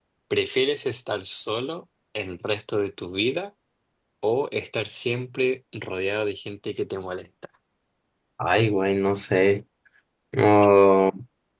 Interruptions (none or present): none